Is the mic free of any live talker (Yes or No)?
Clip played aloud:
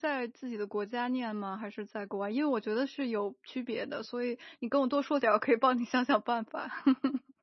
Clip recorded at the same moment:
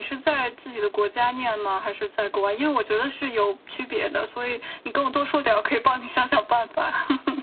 Yes